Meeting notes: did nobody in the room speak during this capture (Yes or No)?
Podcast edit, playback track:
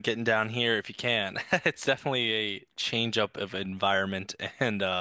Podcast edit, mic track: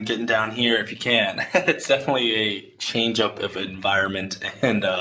Yes